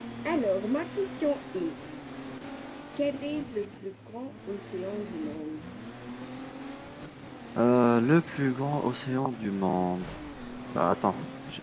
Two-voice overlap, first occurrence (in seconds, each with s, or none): none